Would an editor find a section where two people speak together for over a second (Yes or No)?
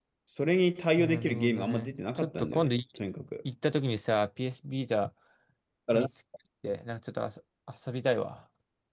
Yes